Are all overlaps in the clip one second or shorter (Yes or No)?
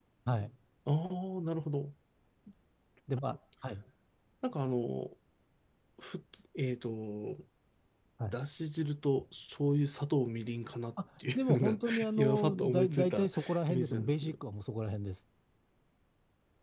No